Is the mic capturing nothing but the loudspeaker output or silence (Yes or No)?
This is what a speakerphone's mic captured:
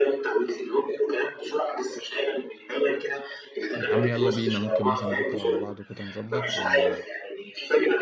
No